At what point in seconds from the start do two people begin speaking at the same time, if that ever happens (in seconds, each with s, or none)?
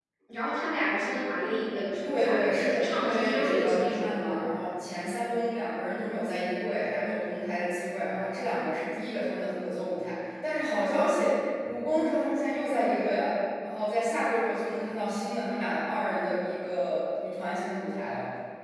2.0 s